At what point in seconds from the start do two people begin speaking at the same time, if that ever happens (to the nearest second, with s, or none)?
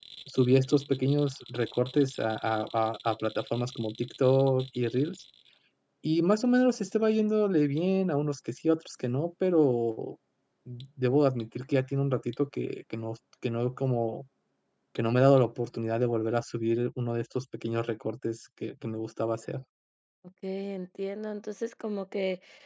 none